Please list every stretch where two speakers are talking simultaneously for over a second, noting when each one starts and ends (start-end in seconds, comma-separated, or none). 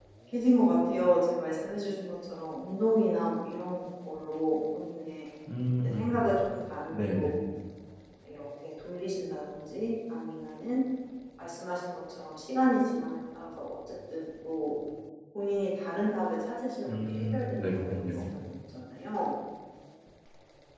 17.0-18.3